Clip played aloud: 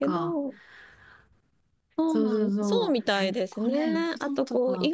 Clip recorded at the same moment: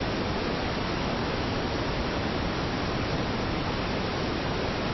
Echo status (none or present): none